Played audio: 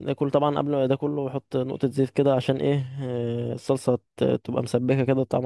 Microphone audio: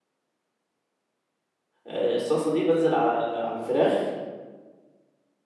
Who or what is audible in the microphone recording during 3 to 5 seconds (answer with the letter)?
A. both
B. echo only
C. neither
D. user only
D